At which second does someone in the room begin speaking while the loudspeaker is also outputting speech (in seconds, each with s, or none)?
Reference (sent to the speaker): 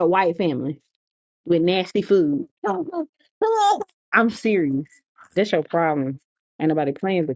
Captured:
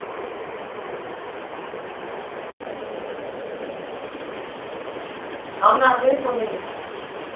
5.6 s